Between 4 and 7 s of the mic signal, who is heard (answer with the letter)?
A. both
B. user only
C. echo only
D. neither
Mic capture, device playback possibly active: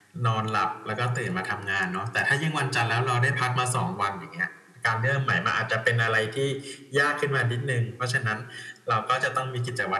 C